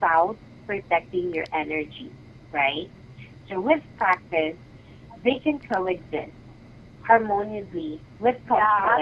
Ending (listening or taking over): taking over